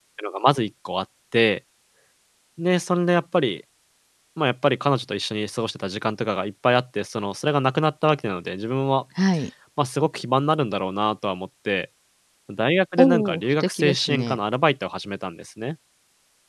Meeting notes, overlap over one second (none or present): present